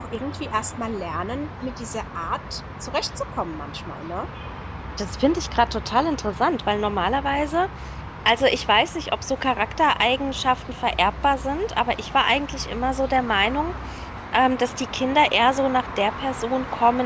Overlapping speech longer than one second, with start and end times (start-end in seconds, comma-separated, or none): none